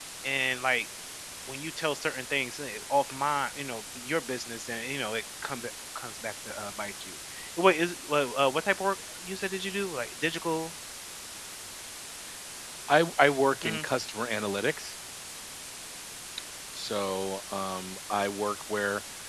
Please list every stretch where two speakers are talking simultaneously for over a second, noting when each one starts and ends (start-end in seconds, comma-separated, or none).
none